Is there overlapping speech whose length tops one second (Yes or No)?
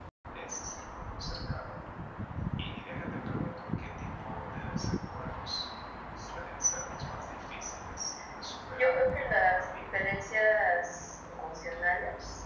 Yes